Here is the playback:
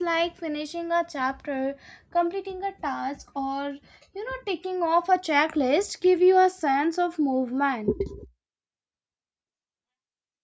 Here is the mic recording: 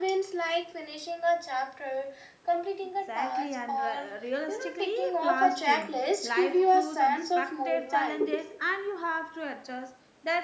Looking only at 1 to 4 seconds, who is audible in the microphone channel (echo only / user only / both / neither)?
both